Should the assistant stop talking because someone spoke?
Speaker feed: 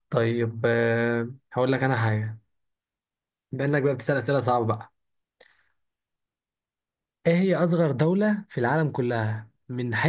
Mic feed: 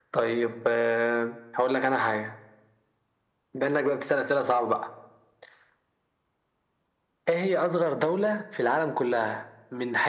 No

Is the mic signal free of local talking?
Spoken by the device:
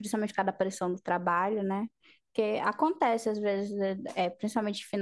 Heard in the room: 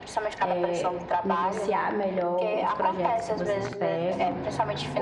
No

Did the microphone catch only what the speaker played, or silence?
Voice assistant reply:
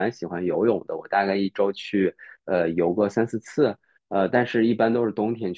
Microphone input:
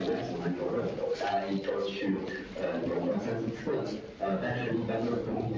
Yes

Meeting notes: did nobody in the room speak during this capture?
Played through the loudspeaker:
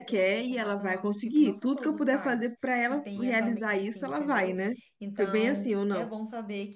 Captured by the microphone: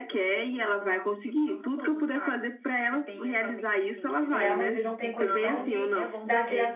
No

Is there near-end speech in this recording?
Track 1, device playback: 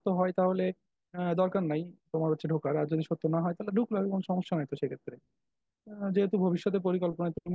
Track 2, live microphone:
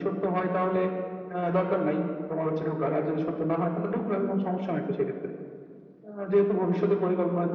No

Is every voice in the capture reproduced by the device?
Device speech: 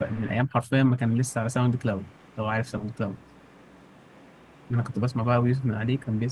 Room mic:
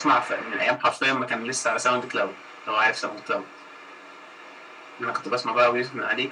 Yes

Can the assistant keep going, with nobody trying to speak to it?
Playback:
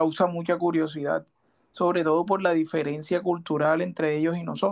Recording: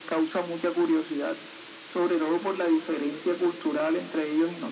Yes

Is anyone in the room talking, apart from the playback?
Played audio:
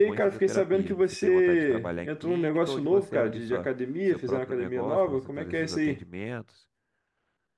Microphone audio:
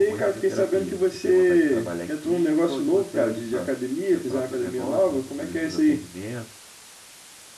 No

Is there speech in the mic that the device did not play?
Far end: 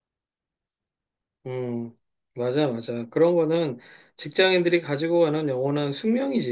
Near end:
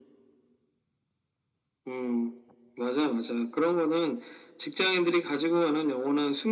No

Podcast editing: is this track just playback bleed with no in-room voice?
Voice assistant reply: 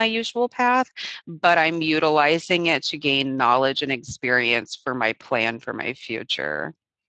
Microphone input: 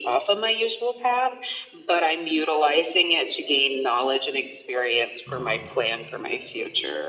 No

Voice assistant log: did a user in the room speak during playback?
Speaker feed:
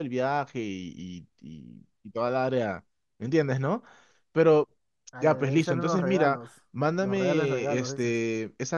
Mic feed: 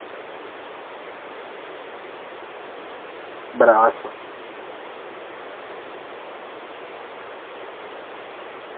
Yes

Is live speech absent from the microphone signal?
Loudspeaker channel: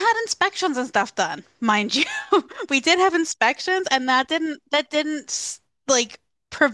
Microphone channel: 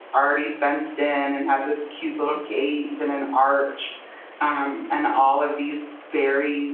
No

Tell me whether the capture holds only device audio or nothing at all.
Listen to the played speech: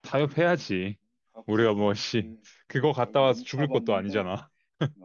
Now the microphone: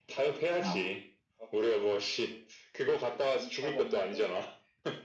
No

